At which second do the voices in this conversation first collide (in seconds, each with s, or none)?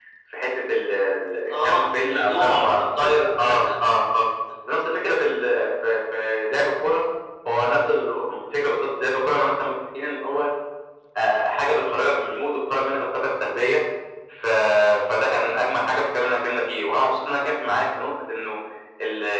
1.5 s